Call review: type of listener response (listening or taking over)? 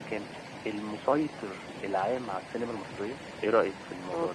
taking over